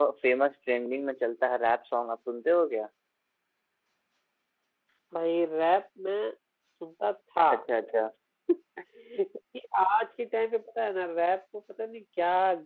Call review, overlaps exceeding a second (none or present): none